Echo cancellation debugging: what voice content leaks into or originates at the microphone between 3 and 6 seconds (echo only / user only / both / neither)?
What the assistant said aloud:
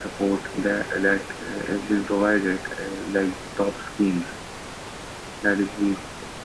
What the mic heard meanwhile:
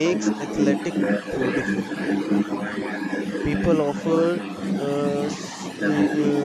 both